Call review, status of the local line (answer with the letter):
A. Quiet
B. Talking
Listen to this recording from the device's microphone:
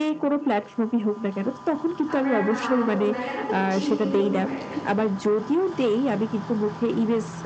B